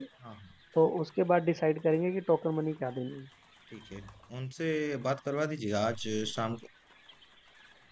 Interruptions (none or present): none